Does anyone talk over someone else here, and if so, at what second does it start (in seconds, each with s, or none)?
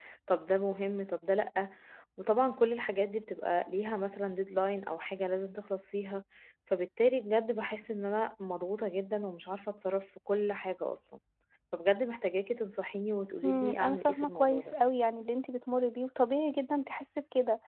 13.4 s